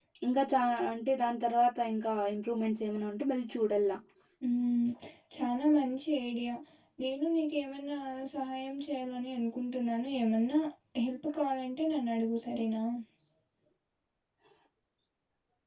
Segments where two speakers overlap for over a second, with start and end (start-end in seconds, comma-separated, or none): none